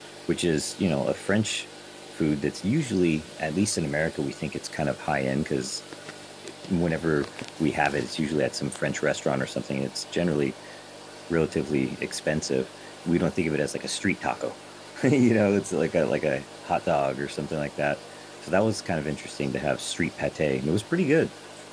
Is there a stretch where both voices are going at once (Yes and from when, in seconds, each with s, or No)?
No